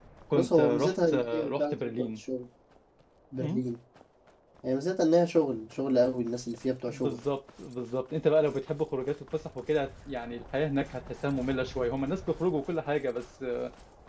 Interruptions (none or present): present